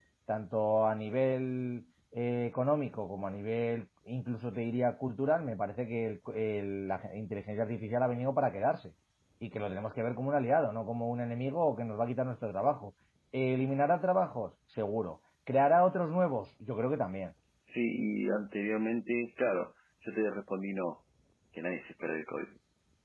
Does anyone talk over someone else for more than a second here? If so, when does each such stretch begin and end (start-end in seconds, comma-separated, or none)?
none